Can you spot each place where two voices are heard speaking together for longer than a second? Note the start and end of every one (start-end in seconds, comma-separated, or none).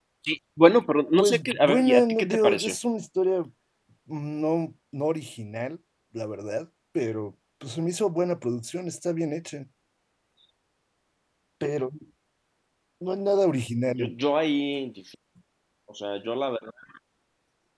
1.2-2.8